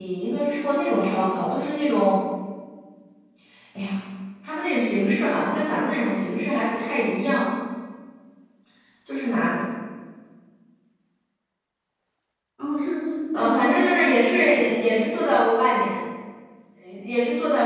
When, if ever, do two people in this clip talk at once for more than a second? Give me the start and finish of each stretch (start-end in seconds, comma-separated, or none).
13.3-15.2